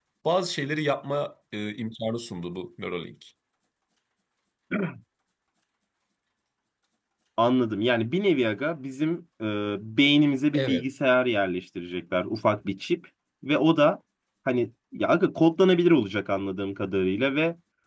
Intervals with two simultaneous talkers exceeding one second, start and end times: none

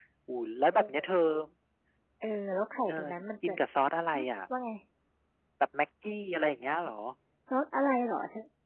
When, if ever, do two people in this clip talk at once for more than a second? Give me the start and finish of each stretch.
none

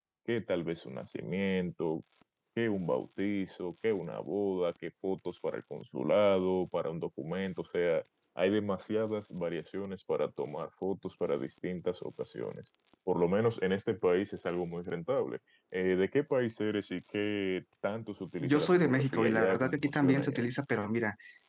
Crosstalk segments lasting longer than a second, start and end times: 18.4-20.6

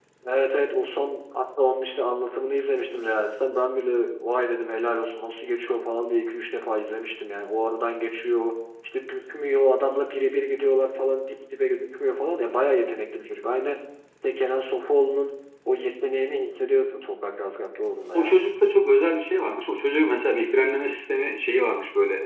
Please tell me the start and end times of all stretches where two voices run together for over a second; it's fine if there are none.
none

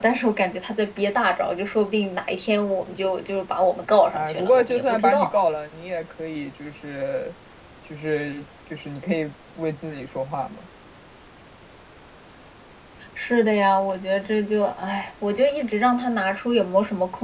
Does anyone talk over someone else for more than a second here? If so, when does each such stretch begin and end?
4.1-5.4

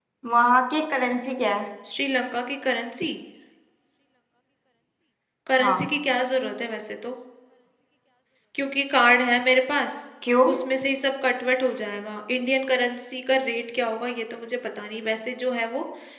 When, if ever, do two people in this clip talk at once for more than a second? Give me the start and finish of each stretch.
none

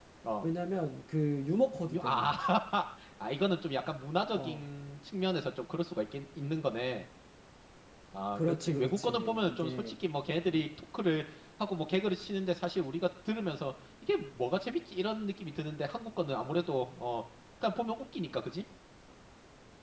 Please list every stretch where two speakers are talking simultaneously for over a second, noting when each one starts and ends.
8.3-9.9

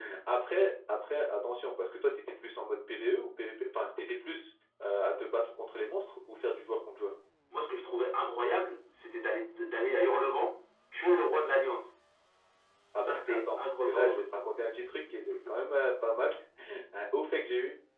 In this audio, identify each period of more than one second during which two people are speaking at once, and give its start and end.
13.0-14.2

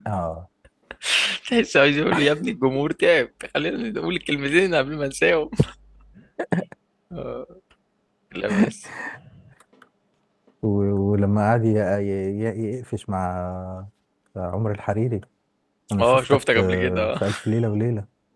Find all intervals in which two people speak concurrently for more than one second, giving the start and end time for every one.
16.0-17.2

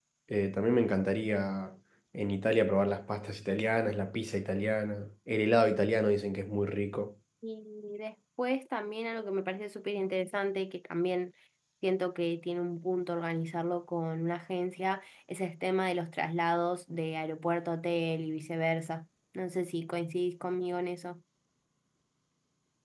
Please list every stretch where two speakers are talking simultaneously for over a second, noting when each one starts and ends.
none

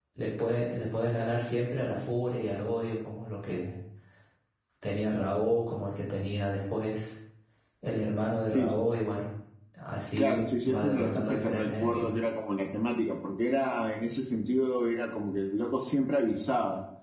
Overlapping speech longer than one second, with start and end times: 10.6-12.1

